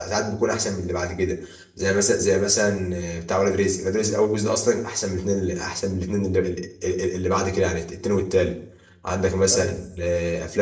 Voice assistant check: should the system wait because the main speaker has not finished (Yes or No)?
Yes